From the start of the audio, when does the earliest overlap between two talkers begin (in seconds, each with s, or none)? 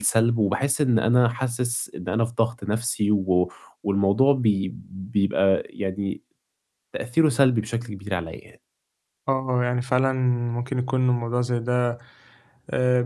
none